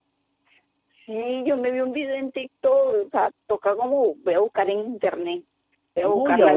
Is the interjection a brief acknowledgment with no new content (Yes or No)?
No